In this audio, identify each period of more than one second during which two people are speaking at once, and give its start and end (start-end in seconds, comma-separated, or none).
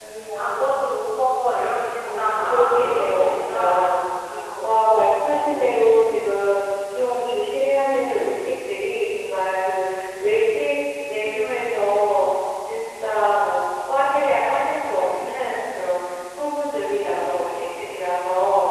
2.0-4.0, 4.6-6.1